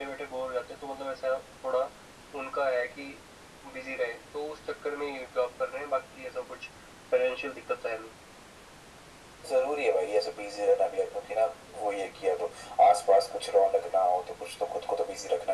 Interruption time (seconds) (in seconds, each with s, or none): none